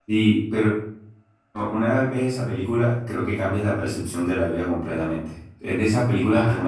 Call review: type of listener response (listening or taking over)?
listening